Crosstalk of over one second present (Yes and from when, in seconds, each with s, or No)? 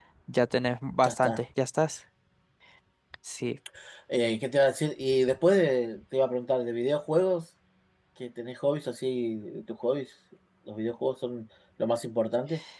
No